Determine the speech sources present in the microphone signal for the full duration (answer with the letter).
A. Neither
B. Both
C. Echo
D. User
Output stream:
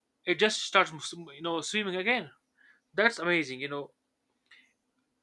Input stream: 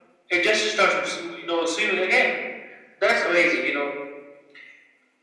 C